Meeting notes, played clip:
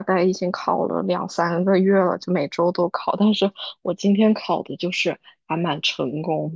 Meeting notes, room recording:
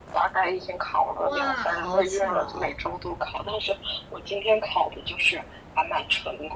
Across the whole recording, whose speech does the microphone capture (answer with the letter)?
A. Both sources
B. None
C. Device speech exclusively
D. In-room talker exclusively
A